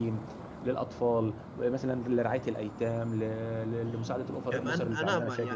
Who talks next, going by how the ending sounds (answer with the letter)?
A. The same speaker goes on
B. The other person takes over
B